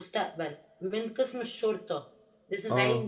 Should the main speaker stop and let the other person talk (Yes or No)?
No